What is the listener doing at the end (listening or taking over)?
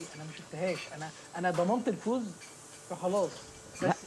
listening